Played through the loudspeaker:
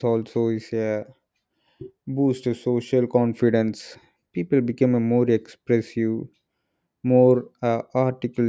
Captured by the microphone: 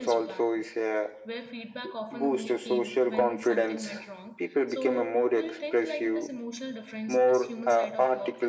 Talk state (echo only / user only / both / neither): both